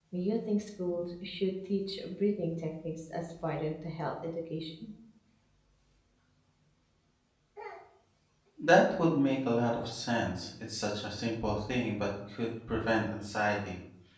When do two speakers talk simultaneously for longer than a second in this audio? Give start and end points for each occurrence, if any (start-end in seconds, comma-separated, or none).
none